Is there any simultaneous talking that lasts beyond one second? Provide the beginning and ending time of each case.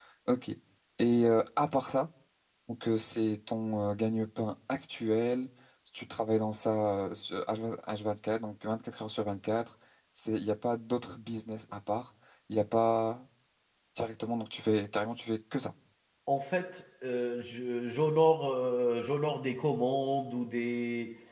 none

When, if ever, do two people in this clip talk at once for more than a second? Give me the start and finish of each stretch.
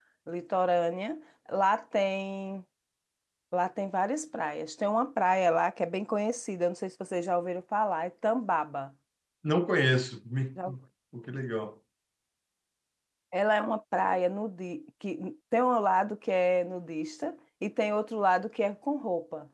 none

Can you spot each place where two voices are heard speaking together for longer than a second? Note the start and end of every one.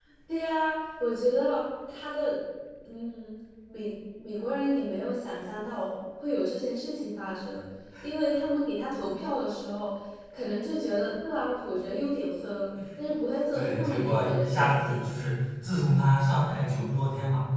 13.5-15.1

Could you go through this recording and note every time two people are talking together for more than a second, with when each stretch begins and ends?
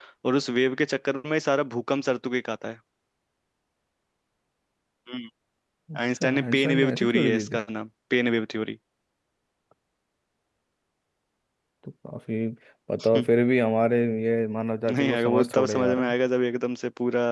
6.2-7.6, 14.9-16.1

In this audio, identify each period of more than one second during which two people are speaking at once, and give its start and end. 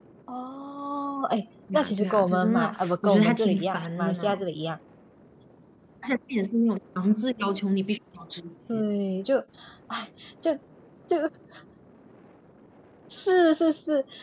1.7-4.4

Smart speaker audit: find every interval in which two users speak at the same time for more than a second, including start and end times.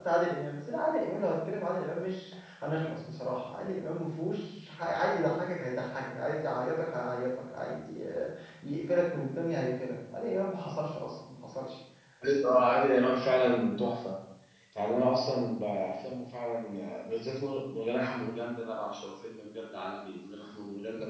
none

